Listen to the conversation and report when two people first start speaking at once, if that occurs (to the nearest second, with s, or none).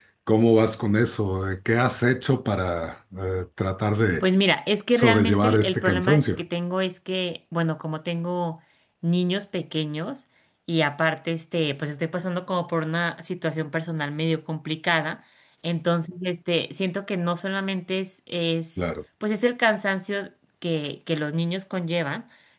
5 s